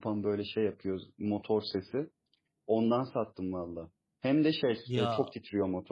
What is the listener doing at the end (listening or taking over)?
listening